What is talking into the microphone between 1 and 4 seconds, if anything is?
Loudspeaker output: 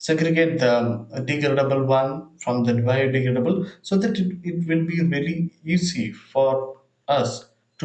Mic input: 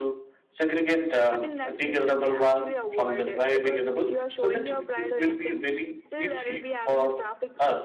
both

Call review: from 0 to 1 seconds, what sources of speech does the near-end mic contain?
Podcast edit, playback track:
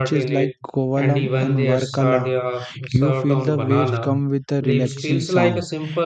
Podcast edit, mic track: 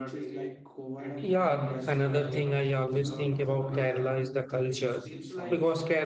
echo only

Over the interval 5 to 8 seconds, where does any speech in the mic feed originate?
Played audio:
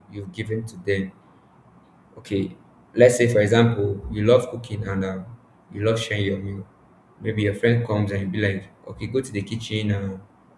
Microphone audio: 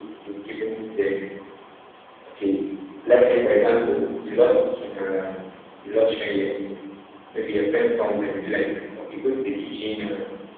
echo only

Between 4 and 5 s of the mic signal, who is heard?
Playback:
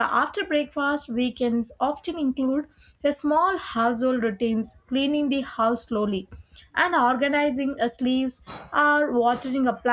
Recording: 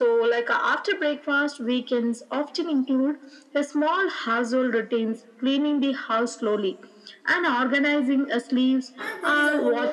echo only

